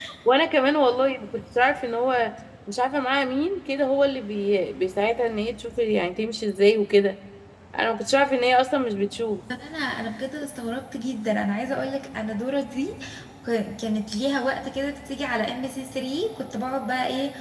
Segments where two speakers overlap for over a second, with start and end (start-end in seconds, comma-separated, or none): none